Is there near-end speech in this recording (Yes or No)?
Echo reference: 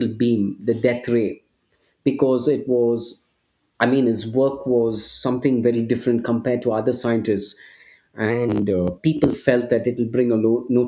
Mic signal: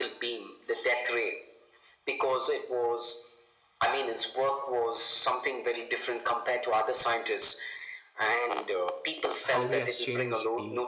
Yes